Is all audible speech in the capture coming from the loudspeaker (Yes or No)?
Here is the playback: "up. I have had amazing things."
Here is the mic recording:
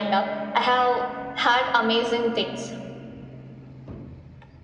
Yes